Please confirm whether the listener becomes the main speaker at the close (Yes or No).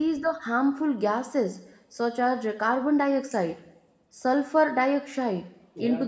No